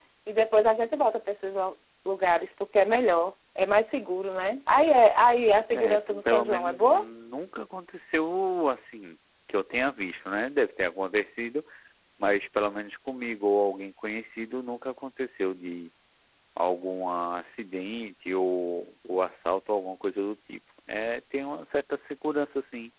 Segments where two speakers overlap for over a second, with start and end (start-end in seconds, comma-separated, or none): 5.7-7.0